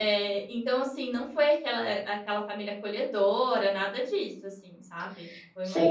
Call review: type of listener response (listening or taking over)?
taking over